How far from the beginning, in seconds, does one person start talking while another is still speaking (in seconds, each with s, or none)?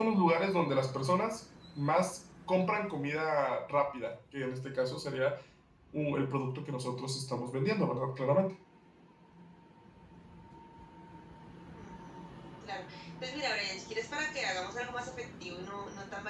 none